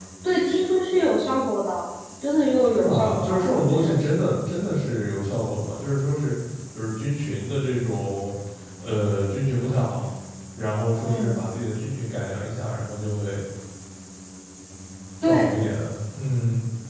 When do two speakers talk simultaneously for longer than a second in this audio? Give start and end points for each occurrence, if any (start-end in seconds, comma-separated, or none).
2.8-4.0